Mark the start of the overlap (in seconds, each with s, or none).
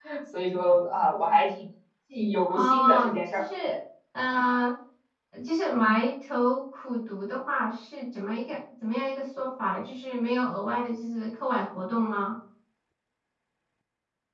2.5 s